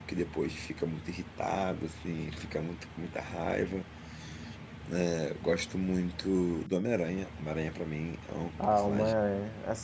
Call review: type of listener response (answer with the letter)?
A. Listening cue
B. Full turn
B